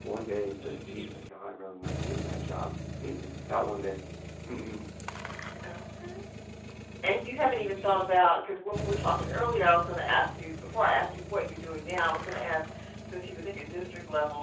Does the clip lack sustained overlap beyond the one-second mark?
Yes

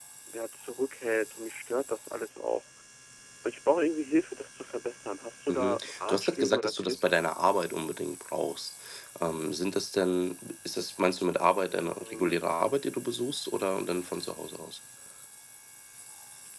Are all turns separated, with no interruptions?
No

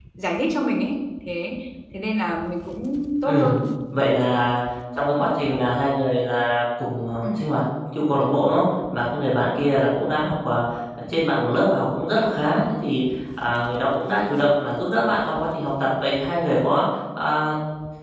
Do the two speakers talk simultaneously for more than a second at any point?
No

